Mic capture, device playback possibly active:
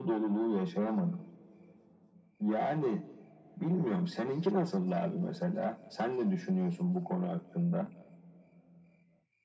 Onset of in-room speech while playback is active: none

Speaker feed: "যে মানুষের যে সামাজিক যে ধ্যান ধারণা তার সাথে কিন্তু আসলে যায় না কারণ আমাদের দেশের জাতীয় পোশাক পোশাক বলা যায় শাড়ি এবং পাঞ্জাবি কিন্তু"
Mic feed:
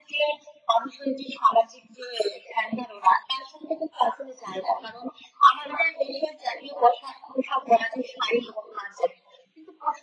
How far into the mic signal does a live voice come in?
none

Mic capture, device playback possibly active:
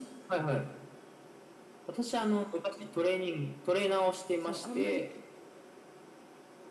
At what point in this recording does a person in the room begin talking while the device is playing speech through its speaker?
4.3 s

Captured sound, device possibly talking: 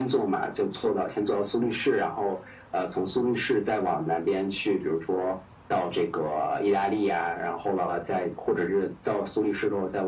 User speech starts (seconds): none

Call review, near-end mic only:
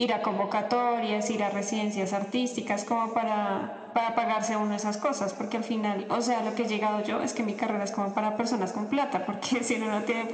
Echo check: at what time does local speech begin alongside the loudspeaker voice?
none

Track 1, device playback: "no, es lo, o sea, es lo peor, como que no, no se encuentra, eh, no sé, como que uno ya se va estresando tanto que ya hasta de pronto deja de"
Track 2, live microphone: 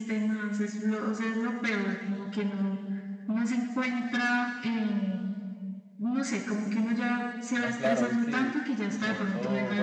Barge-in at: 7.5 s

